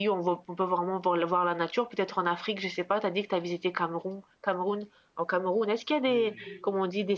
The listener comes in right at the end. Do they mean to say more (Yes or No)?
No